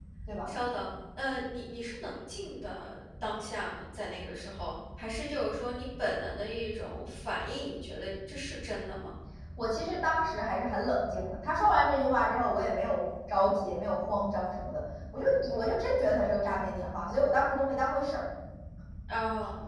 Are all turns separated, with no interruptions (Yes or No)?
Yes